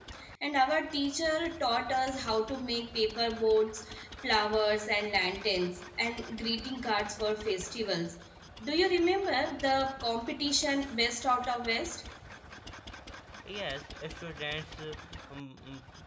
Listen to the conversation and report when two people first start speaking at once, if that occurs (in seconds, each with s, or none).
none